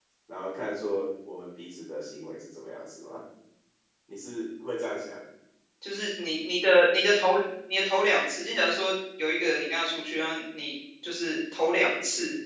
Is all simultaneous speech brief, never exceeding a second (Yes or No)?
Yes